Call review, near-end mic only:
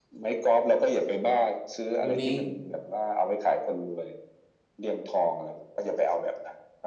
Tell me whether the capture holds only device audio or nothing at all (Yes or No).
No